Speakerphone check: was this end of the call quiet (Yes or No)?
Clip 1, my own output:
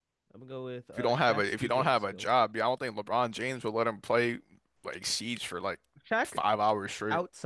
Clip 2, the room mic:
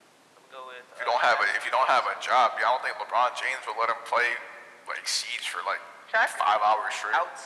Yes